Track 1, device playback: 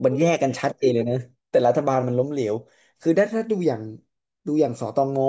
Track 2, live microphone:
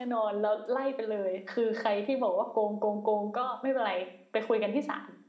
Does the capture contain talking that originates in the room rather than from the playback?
Yes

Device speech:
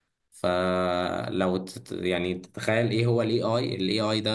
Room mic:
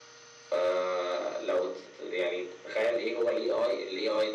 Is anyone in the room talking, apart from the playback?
No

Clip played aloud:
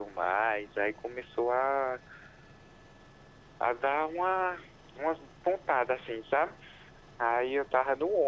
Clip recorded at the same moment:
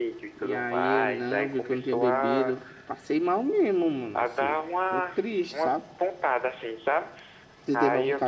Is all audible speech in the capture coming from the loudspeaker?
No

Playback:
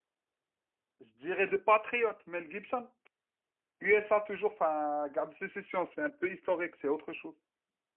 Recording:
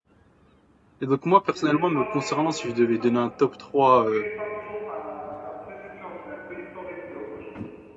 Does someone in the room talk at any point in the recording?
Yes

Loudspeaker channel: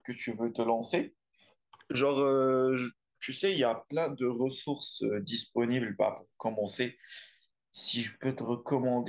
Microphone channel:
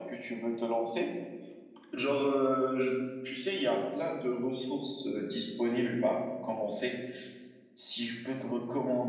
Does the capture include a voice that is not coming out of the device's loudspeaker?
No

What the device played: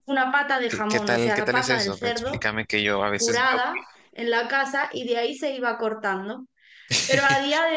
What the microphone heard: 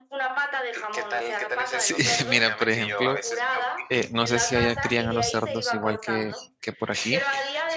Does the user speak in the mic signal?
Yes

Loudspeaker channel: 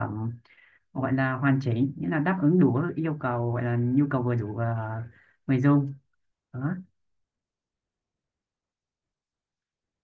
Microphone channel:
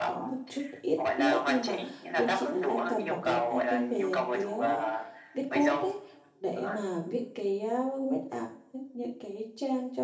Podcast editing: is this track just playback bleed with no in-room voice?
No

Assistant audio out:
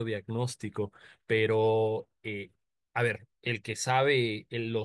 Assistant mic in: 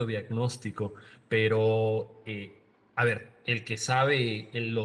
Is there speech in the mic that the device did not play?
No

